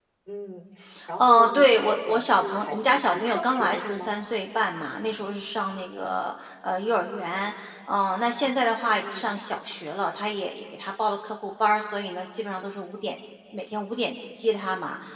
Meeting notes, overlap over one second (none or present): present